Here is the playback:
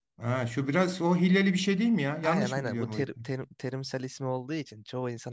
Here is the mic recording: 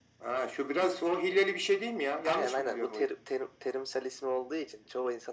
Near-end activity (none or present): none